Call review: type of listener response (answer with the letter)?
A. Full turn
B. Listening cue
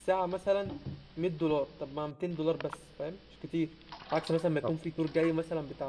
B